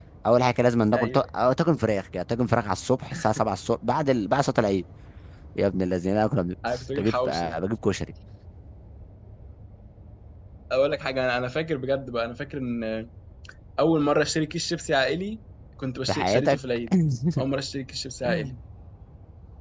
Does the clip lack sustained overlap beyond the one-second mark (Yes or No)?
Yes